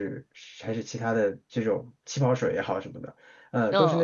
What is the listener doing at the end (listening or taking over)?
listening